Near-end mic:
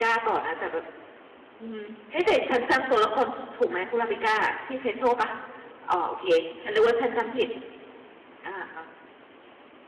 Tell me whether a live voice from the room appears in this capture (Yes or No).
Yes